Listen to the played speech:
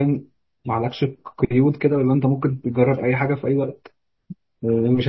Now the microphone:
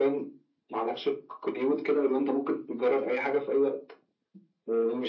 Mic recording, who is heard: echo only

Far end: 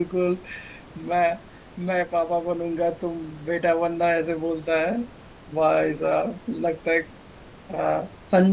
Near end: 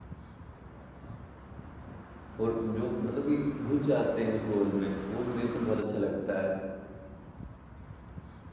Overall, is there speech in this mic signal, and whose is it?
user only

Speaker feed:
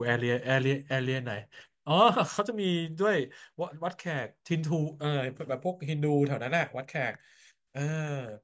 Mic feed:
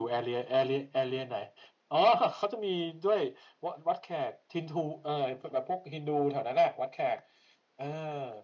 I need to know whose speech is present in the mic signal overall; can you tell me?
echo only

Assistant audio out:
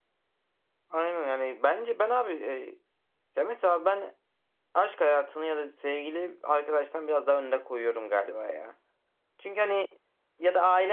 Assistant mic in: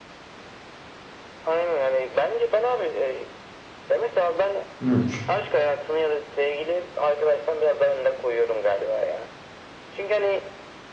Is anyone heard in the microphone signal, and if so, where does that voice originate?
both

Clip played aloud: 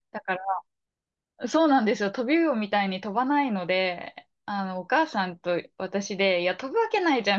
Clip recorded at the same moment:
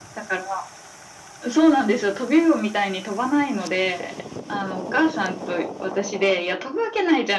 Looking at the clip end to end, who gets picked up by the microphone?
echo only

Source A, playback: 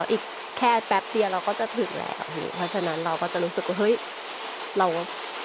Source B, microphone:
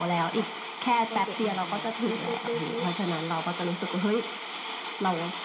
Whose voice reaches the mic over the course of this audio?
both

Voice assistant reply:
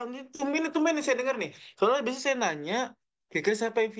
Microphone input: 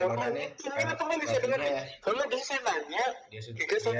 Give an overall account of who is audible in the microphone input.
both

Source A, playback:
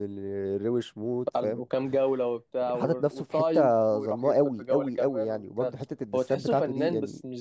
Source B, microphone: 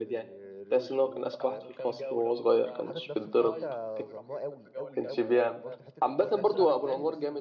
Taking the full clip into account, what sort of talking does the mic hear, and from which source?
both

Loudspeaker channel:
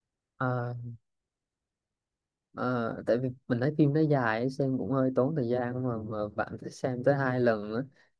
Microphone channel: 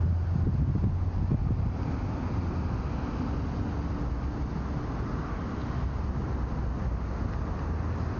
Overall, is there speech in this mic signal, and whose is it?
neither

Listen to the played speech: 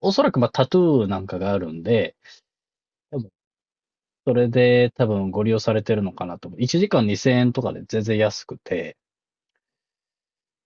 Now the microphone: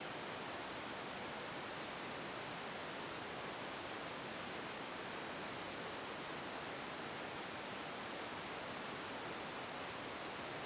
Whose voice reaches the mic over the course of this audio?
neither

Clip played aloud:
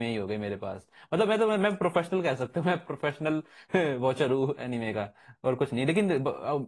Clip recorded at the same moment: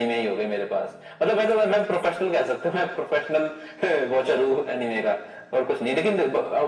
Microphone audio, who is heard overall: echo only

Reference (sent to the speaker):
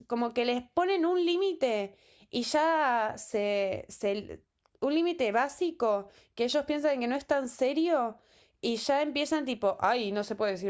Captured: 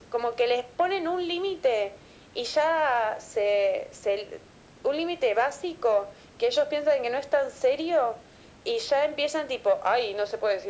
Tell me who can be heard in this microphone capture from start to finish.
echo only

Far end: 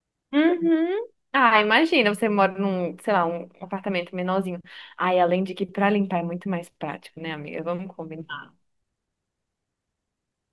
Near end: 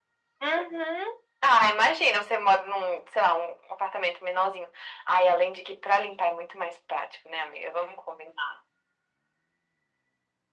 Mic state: echo only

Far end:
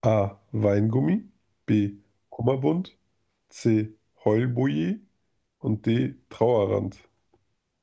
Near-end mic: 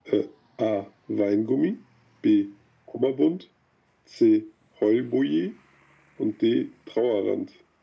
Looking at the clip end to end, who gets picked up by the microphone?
echo only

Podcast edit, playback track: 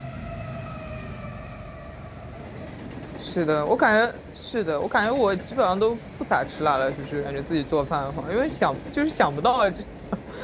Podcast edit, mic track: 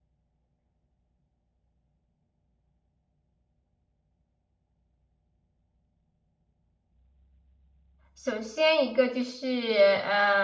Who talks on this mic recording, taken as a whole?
user only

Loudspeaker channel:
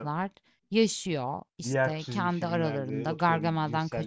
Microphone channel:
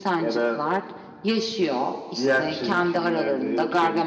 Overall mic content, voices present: echo only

